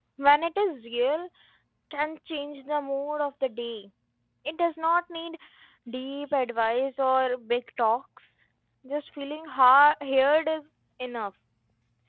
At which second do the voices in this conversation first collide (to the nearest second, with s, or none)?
none